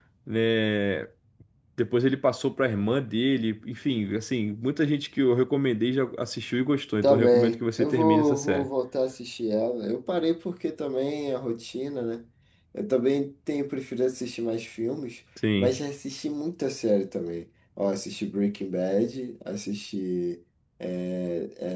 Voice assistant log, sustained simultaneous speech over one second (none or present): present